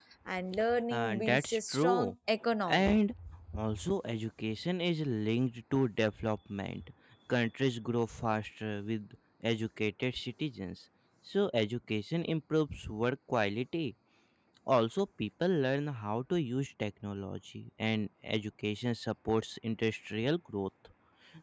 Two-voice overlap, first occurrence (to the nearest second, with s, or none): 1 s